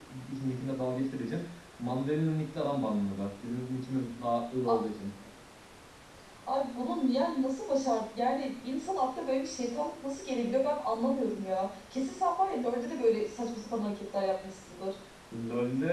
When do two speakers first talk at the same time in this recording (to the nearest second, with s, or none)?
none